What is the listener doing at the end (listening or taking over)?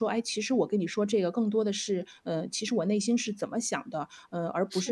listening